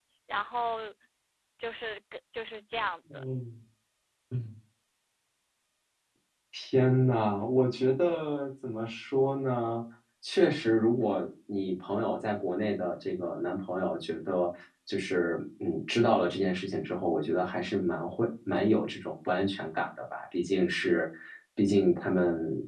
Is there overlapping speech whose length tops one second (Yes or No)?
No